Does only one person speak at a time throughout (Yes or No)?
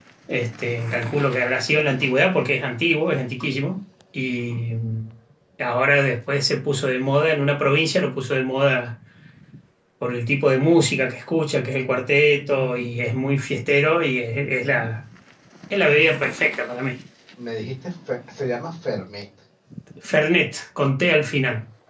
Yes